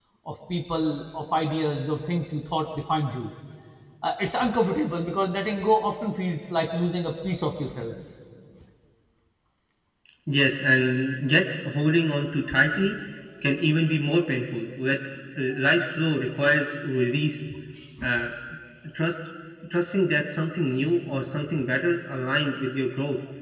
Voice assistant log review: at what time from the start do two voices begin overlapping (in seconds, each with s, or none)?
none